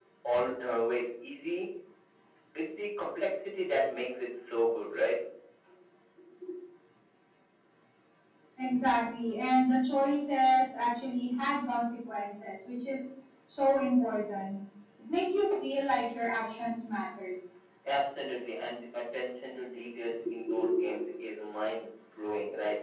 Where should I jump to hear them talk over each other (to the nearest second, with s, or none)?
none